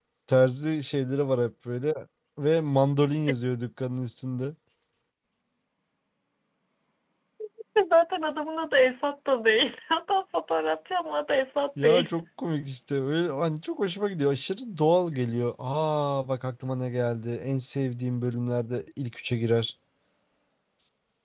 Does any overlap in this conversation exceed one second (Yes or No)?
No